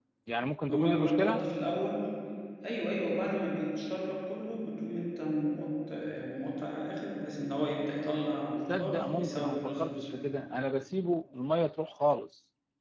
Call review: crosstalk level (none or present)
present